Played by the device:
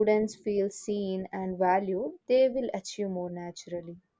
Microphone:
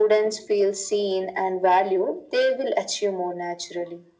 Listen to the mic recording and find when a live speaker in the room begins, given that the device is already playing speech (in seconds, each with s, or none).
none